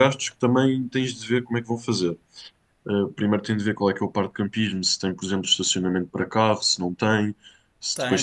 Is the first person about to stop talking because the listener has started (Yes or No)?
Yes